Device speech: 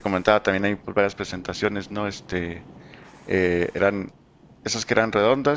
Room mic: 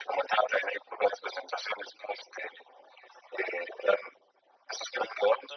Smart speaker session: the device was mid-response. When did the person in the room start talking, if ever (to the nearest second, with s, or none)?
none